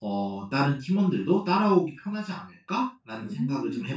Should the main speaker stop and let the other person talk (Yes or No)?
Yes